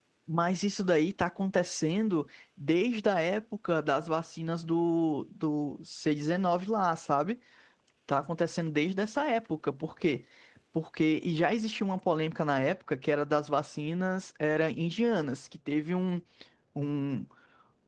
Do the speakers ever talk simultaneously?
No

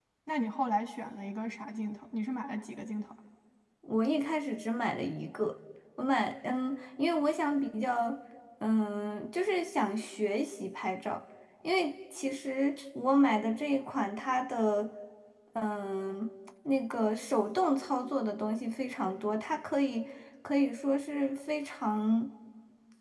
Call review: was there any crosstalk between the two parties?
No

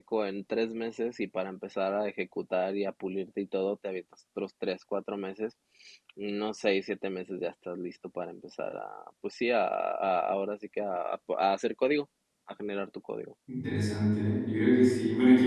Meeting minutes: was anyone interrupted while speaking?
No

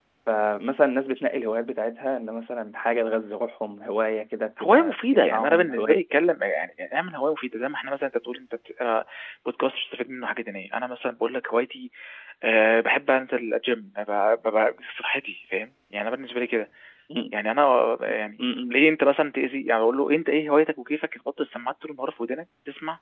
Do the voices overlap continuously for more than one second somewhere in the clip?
Yes, from 4.6 s

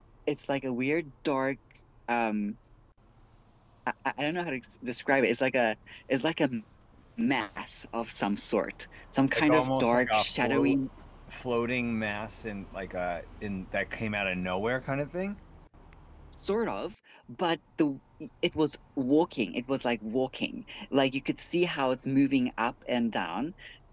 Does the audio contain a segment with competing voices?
Yes, from 9.4 s

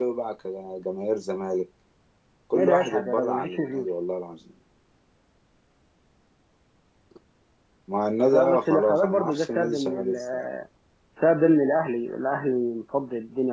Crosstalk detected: Yes, from 2.5 s

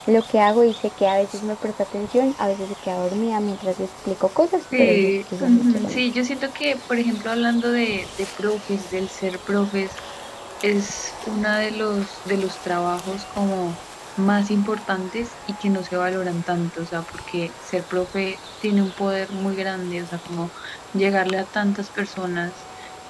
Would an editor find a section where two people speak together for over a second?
Yes, from 4.7 s

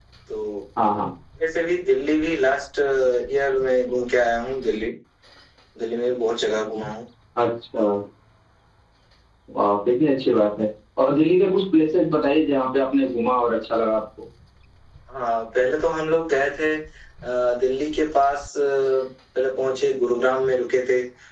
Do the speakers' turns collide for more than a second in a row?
No

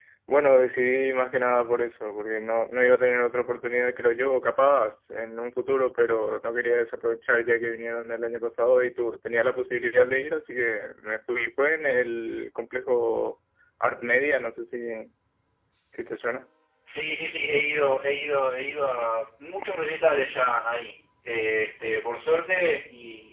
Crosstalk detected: No

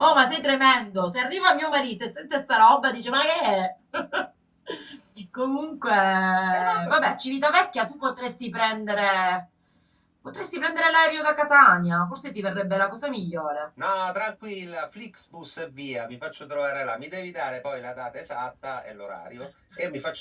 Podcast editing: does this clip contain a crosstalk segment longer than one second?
No

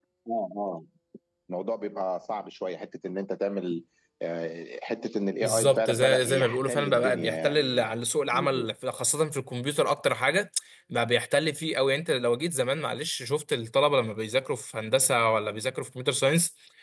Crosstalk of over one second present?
Yes, from 5.4 s

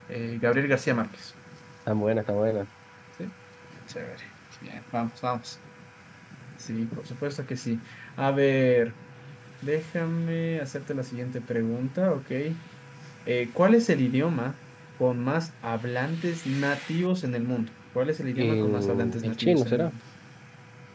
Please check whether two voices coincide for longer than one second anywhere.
Yes, from 18.4 s

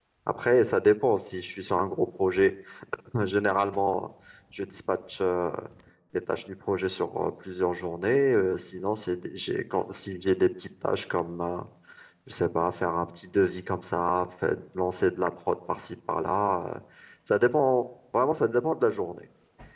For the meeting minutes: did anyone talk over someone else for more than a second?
No

